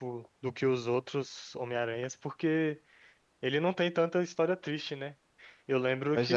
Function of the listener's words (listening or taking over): listening